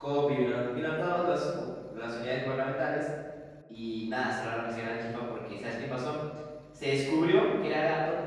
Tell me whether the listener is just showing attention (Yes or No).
Yes